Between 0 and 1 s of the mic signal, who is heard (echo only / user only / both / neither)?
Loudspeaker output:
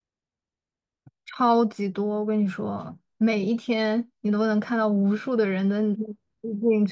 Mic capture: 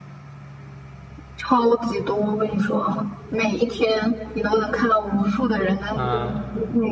neither